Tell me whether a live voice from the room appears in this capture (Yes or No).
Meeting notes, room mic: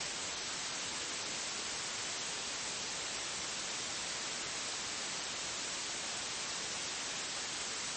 No